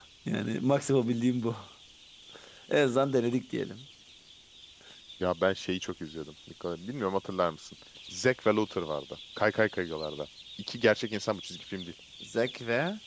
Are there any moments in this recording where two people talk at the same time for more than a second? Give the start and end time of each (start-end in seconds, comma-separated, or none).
none